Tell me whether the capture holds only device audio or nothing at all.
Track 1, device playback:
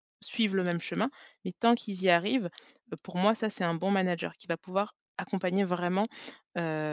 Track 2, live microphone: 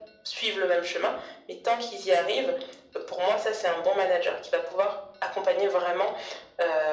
Yes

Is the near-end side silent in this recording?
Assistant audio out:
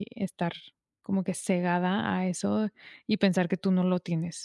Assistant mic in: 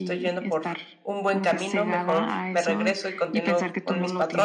No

